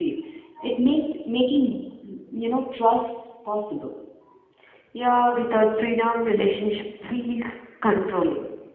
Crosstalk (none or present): none